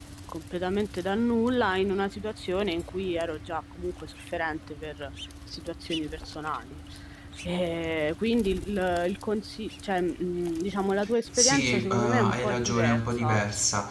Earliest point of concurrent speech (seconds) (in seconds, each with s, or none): 11.3 s